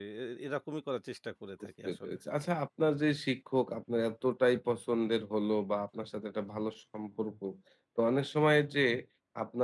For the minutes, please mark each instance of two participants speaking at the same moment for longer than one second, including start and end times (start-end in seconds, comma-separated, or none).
none